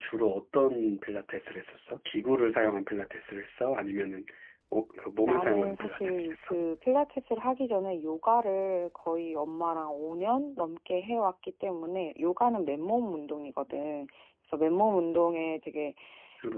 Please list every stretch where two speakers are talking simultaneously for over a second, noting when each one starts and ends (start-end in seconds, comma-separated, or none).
5.2-6.6